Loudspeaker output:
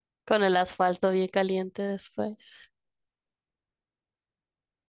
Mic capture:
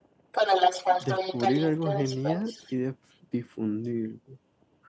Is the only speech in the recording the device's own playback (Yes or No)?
No